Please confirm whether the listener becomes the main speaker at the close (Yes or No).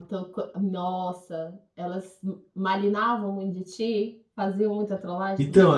Yes